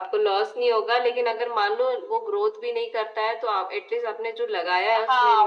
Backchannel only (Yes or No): No